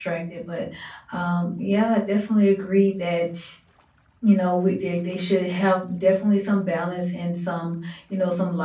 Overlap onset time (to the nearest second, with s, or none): none